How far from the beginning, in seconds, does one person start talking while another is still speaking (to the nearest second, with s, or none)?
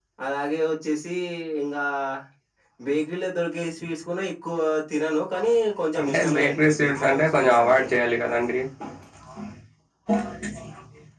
6 s